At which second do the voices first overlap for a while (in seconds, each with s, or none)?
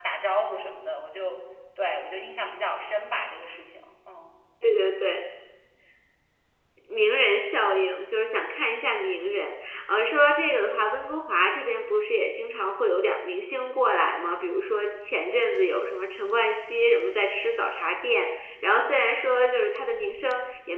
none